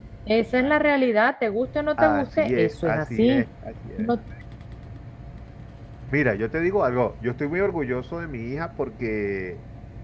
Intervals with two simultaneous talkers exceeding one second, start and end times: 2.0-3.5

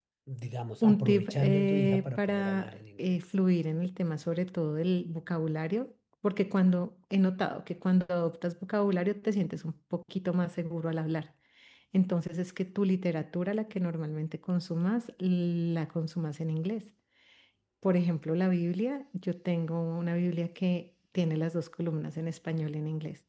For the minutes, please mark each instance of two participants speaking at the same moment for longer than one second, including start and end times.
0.8-3.2

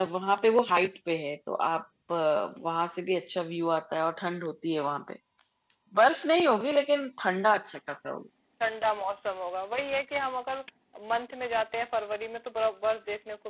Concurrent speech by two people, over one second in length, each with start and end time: none

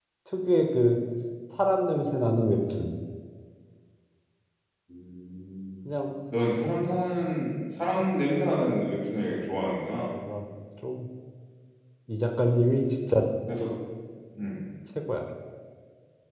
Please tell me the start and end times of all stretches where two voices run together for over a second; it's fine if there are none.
none

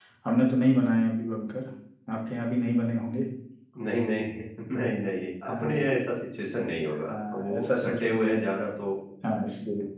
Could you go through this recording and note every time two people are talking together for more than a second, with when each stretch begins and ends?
7.1-8.4

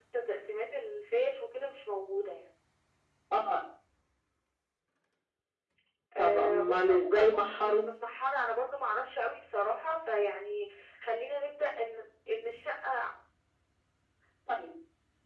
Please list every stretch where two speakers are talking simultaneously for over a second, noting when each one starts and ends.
6.2-7.9

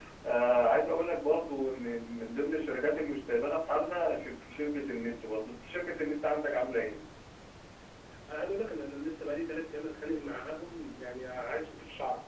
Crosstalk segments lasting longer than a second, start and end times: none

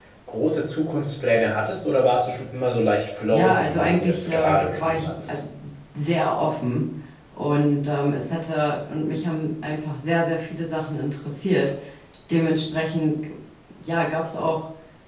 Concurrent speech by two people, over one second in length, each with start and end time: 3.3-5.3

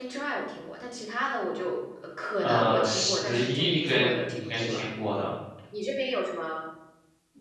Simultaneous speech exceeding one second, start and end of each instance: 2.4-4.8

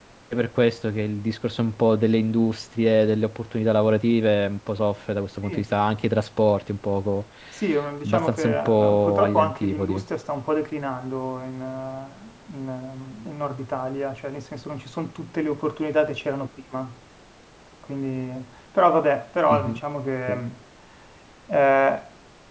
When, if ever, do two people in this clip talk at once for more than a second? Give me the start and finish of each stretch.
8.0-10.0

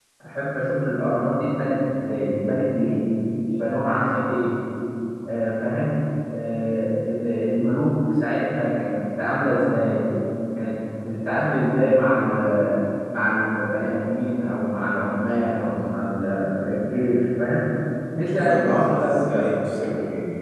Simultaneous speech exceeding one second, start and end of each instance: 18.3-19.5

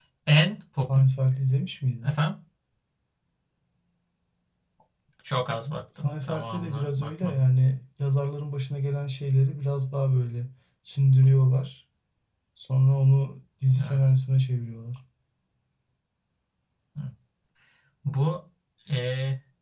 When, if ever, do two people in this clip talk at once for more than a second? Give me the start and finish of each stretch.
6.0-7.4

